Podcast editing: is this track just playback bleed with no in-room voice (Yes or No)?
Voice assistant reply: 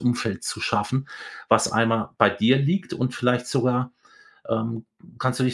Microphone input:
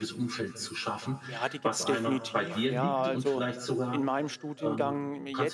No